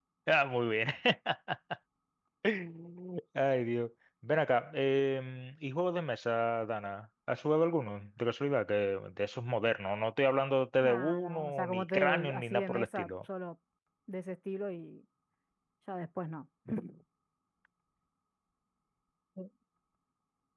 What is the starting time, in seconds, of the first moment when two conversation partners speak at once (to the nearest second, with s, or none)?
11 s